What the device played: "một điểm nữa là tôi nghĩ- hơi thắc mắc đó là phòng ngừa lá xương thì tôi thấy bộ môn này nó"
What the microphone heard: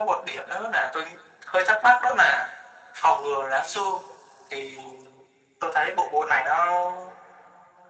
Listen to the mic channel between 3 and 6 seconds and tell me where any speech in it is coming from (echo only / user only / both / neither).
echo only